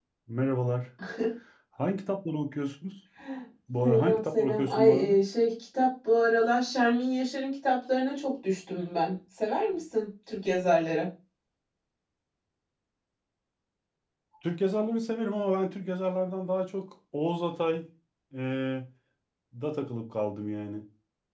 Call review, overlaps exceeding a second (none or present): present